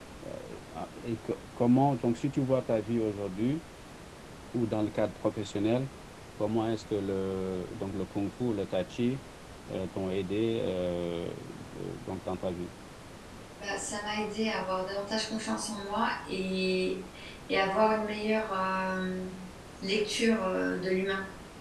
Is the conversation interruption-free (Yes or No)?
Yes